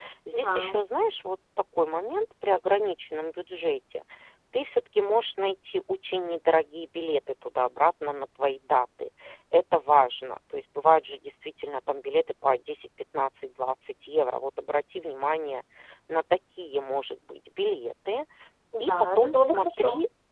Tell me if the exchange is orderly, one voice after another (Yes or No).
No